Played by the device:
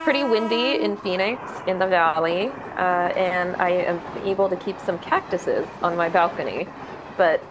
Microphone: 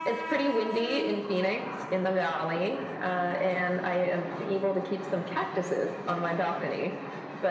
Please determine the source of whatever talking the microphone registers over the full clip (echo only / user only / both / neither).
echo only